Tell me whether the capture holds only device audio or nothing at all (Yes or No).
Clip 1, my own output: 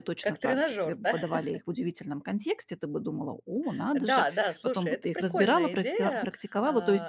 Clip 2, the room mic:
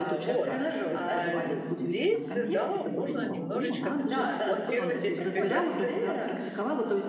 No